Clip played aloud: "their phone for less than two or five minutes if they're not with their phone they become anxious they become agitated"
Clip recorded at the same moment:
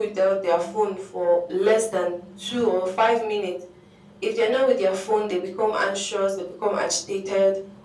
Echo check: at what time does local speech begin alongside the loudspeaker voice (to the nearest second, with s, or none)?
none